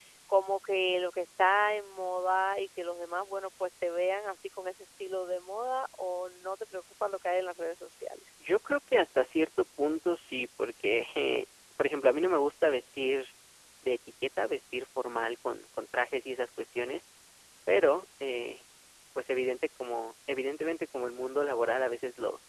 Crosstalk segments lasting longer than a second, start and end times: none

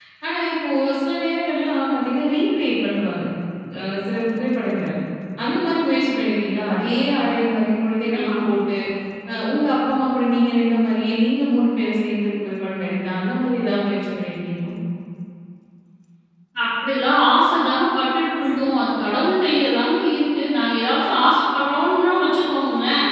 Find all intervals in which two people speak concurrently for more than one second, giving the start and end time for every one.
none

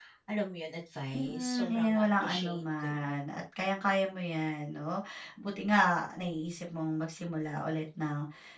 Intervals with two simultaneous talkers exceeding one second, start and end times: 1.1-3.1

